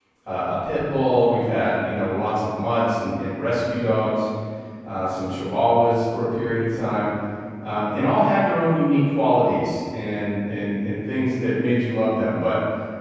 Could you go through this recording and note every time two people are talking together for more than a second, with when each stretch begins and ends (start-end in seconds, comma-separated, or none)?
none